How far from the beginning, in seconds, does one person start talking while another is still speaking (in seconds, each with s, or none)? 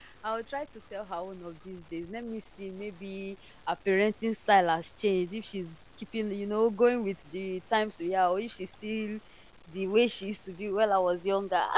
none